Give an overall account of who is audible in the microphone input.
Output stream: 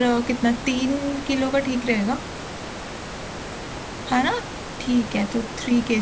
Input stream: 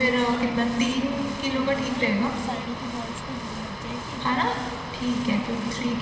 both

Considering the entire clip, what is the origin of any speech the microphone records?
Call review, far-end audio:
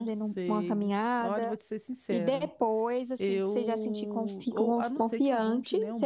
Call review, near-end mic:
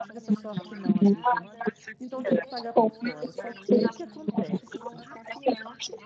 both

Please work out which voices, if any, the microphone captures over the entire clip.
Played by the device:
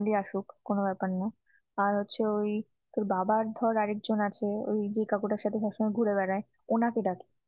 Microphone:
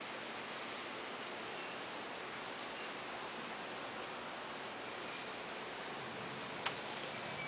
neither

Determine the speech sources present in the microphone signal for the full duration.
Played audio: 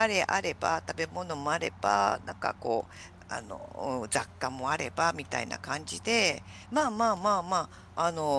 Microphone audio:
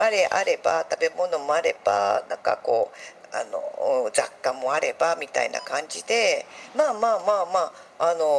echo only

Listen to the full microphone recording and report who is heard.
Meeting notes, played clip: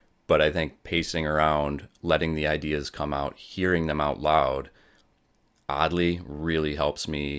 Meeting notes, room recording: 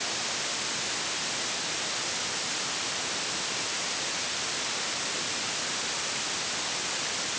neither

